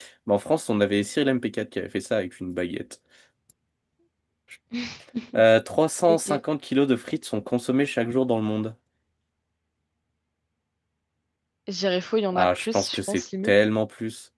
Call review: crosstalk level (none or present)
present